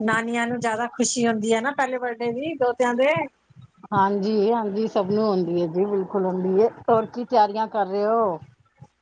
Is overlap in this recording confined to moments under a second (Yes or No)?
Yes